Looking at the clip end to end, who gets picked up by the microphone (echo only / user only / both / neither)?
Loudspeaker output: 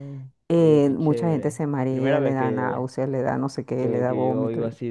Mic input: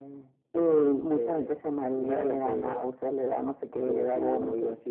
echo only